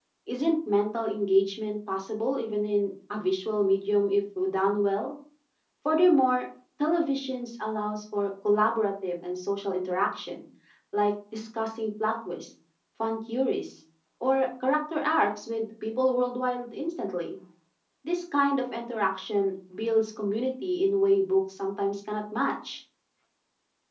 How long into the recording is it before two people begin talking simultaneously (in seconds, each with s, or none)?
none